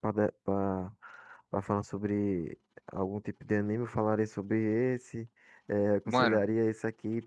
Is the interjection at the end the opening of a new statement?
No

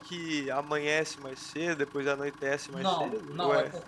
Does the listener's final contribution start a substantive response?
Yes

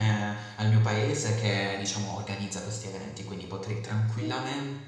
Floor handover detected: No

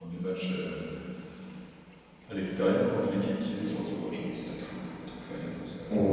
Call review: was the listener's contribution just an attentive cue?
No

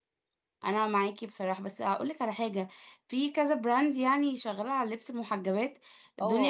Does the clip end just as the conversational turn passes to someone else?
Yes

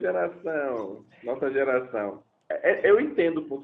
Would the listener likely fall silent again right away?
Yes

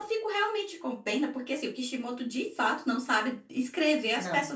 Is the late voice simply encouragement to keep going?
Yes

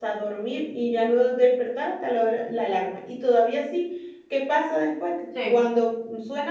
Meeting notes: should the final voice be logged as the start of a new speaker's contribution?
No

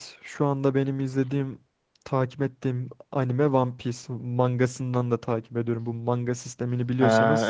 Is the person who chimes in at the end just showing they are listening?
No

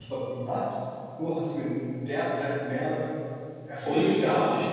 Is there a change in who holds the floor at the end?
Yes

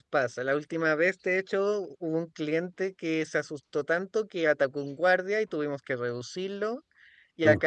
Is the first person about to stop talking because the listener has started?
No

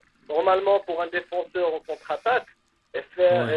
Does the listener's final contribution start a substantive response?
No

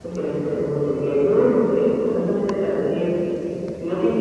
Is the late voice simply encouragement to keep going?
Yes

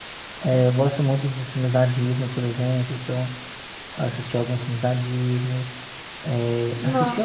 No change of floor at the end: Yes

